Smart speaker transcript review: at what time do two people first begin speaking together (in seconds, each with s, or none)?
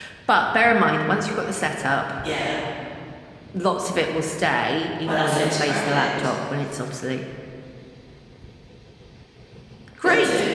5.1 s